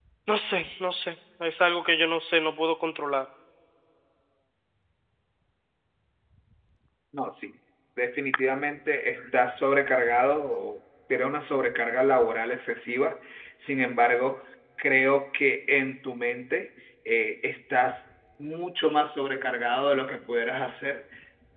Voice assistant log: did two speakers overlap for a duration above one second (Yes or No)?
No